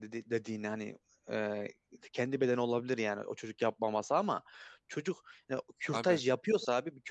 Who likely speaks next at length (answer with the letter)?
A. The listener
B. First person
B